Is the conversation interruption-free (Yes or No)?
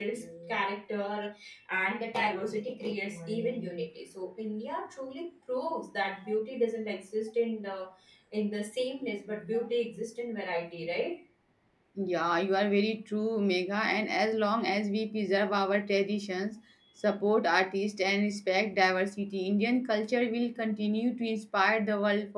Yes